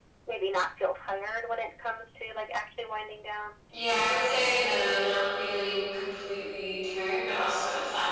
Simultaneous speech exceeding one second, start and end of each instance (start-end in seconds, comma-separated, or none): none